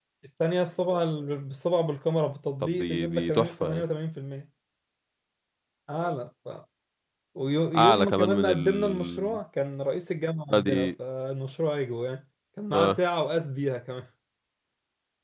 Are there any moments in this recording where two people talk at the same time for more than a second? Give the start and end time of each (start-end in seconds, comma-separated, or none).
2.6-3.8, 7.8-9.4